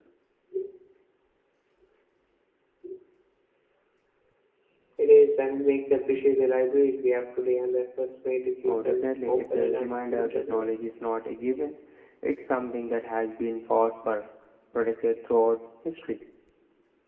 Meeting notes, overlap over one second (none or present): present